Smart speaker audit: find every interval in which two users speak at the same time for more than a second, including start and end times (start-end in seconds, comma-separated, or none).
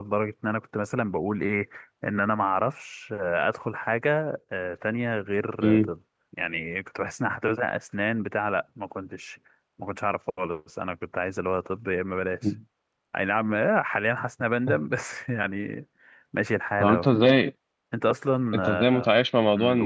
none